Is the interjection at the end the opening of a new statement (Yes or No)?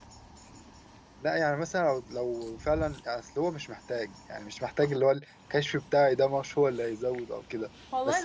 Yes